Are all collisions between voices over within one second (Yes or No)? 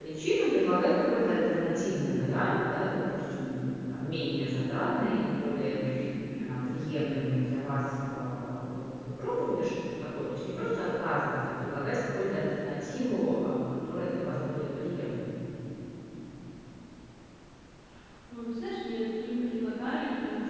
Yes